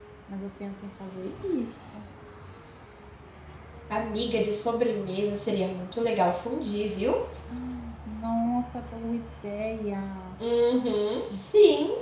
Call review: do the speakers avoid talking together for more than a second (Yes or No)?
Yes